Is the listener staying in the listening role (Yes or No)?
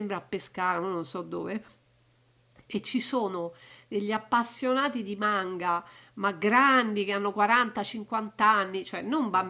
Yes